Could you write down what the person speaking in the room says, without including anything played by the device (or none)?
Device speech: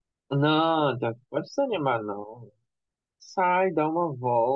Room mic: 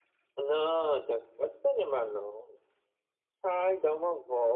none